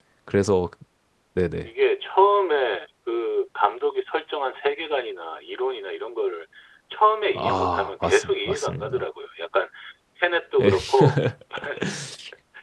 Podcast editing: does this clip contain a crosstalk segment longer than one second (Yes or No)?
Yes